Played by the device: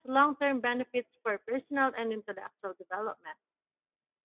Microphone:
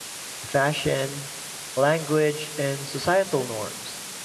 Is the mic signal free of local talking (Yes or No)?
No